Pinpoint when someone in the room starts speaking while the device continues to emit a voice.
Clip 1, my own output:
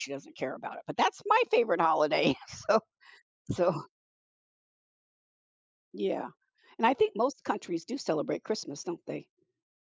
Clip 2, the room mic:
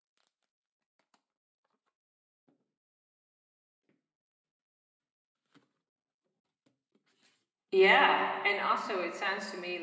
7.7 s

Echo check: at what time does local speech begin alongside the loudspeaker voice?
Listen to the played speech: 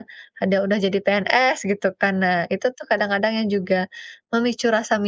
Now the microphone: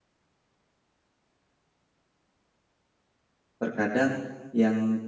3.6 s

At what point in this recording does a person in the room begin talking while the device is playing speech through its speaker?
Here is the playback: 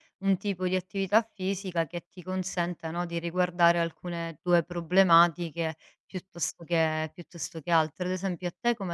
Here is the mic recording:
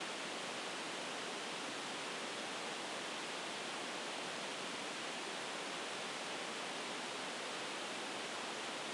none

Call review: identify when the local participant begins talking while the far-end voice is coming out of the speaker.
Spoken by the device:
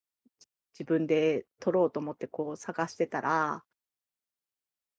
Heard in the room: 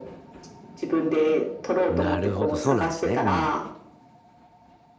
1.9 s

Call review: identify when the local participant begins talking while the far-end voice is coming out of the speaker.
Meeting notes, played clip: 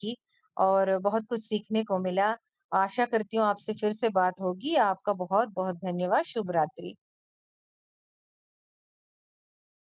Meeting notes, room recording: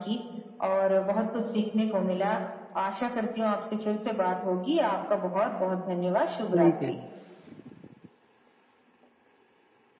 6.5 s

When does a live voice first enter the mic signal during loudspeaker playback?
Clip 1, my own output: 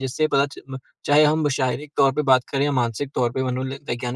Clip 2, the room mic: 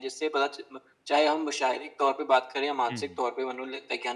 2.9 s

